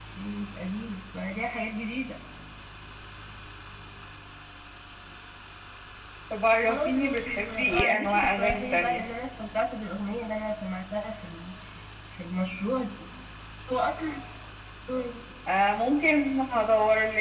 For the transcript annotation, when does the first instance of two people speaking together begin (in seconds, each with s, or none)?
6.6 s